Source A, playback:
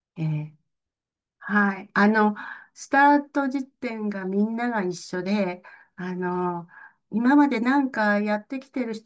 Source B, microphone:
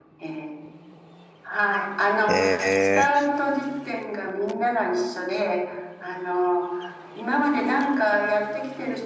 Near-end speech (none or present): present